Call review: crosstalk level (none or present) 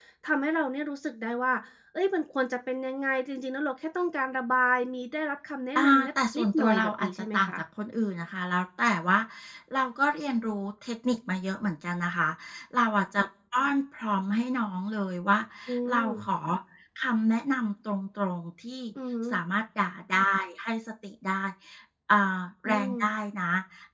present